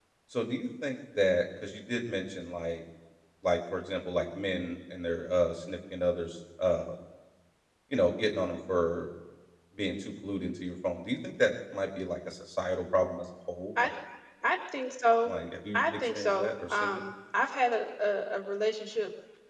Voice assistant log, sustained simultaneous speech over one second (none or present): present